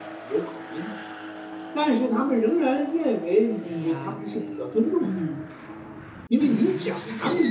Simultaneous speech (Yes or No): Yes